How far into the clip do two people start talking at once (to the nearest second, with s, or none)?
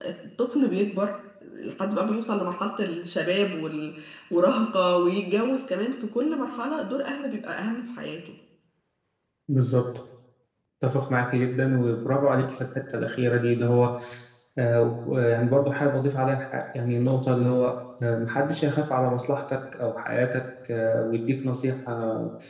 none